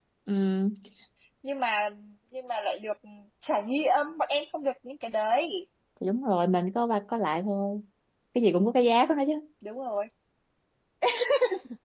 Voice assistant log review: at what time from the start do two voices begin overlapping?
none

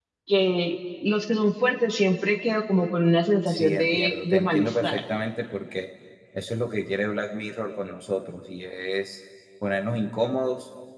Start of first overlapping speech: 3.5 s

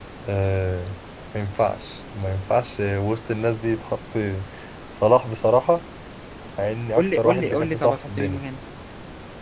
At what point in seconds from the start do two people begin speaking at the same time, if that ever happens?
7.0 s

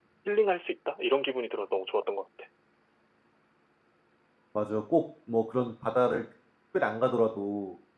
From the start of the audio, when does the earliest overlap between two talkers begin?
none

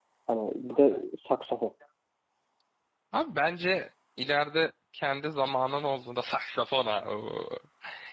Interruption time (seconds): none

